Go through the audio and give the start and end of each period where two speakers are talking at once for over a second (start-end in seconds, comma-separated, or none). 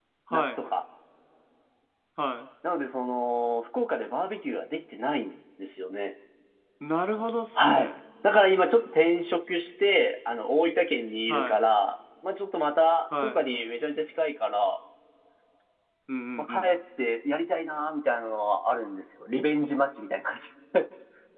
none